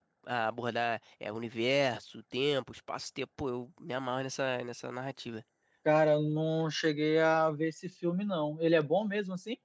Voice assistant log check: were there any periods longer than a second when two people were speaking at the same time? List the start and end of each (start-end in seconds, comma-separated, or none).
none